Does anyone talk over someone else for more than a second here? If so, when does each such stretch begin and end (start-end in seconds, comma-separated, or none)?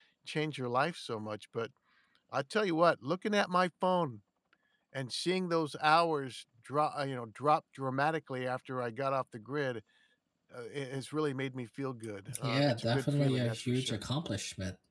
12.4-14.0